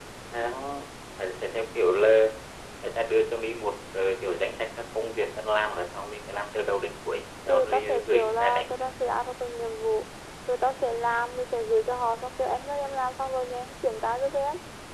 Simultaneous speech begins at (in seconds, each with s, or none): 7.5 s